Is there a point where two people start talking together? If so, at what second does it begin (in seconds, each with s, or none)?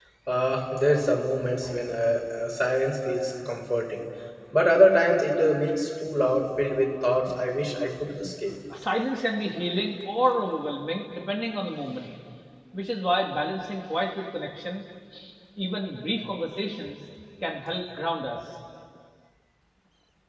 none